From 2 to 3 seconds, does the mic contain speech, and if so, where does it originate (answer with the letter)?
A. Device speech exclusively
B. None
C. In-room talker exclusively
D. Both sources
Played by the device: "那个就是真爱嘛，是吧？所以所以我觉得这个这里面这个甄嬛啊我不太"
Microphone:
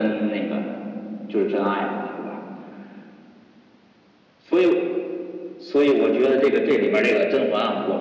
A